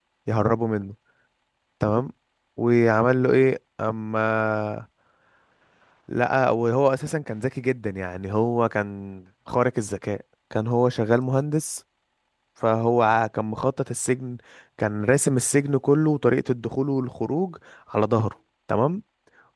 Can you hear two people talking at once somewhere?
No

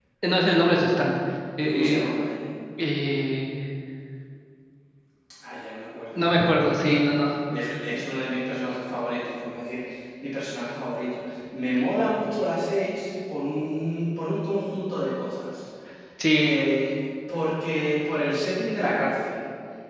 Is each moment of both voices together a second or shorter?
Yes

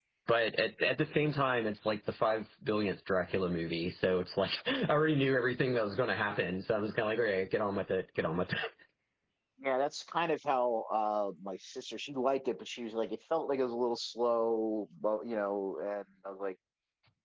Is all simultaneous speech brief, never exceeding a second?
Yes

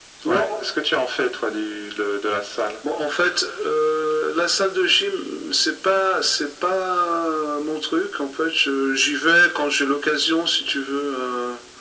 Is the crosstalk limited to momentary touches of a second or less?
Yes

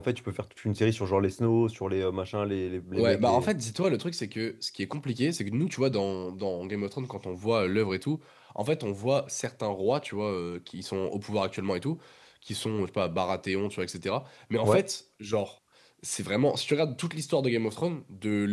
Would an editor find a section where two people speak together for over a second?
No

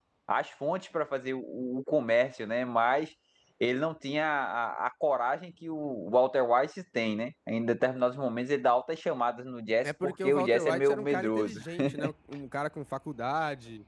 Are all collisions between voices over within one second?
No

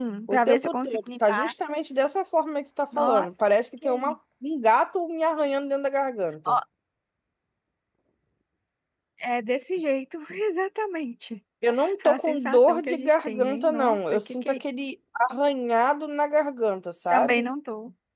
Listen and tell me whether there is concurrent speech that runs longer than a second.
Yes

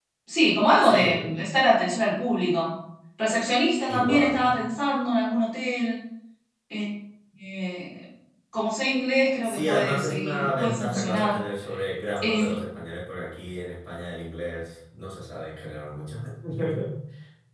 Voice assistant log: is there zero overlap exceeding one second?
No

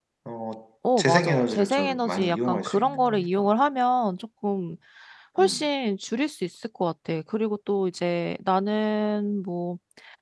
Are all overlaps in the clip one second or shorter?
No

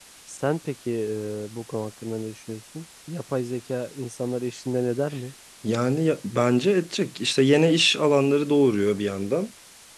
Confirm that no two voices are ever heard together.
Yes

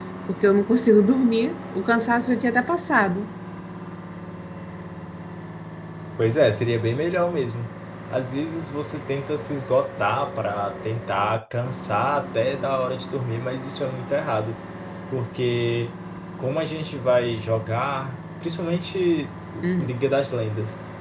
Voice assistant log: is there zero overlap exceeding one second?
Yes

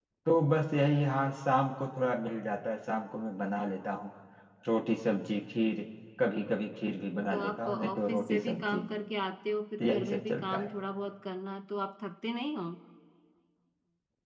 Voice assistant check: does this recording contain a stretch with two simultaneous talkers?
Yes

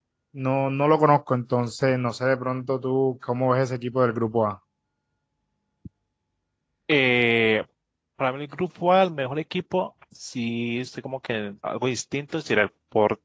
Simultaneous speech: No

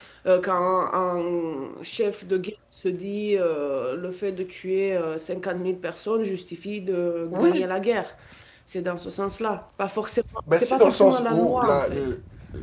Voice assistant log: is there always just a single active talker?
No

